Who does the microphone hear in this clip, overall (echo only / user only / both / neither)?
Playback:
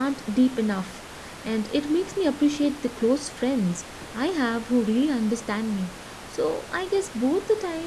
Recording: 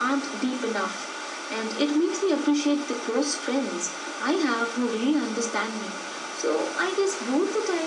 echo only